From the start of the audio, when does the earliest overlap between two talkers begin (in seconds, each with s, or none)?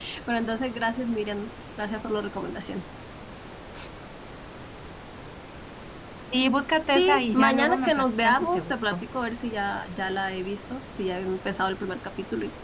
6.9 s